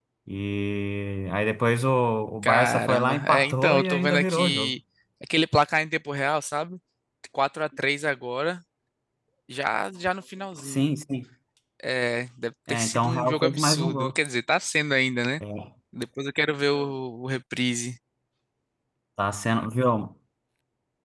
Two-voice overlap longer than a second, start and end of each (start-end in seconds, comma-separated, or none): 2.4-4.7, 12.7-14.1